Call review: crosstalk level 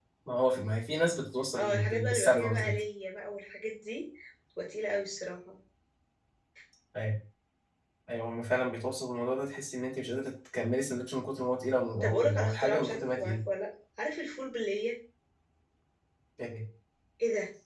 present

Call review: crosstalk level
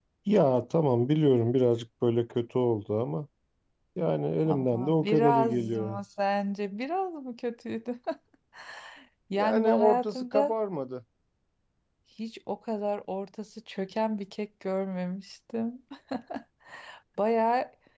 present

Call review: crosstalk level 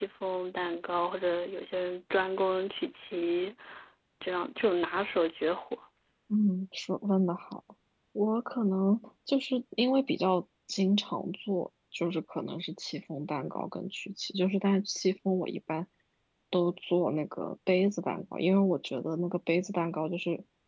none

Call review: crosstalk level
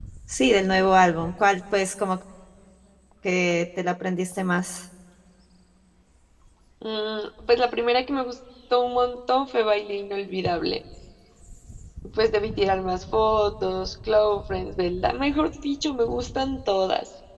none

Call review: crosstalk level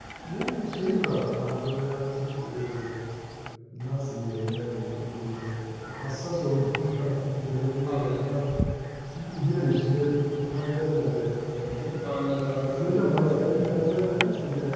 present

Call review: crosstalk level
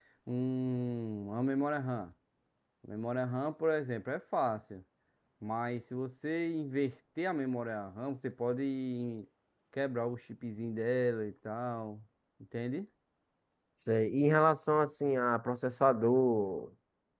none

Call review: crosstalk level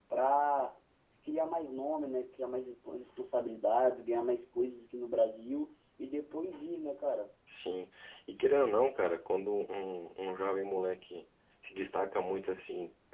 none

